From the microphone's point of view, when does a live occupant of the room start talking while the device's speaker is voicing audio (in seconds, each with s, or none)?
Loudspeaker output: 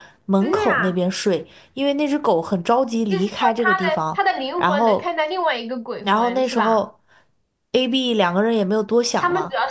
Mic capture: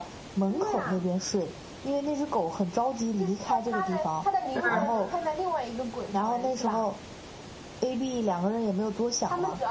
4.5 s